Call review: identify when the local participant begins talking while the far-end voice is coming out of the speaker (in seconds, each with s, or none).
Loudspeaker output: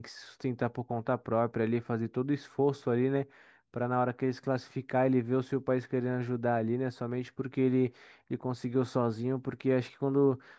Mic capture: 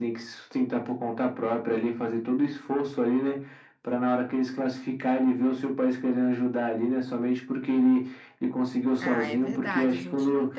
9.0 s